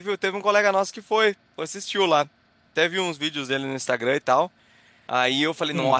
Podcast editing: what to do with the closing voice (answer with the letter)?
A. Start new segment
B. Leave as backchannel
B